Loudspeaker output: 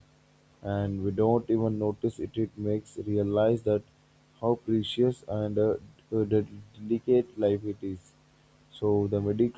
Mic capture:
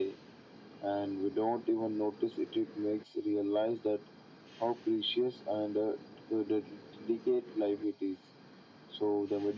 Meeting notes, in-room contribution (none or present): none